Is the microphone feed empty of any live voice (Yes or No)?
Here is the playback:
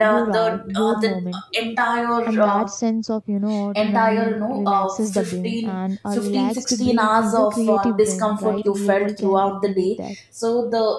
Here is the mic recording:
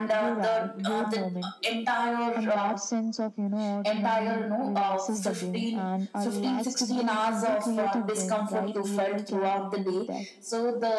Yes